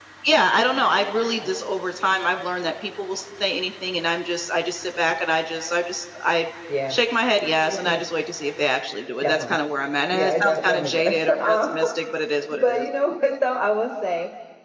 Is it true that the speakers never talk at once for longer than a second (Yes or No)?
No